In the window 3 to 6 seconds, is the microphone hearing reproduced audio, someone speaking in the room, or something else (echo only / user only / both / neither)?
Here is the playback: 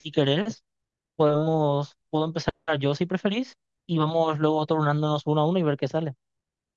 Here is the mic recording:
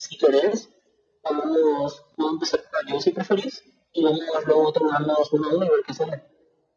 echo only